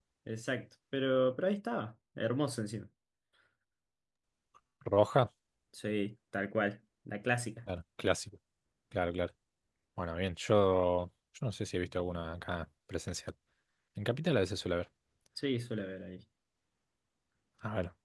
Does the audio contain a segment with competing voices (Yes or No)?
No